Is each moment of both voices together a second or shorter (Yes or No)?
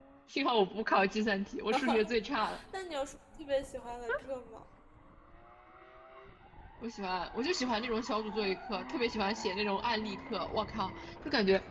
Yes